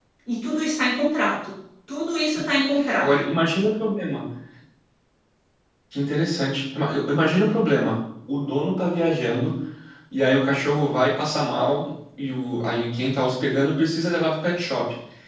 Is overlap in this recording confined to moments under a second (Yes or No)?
Yes